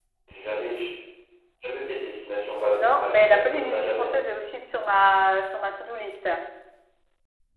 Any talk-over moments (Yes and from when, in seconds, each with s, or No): Yes, from 2.7 s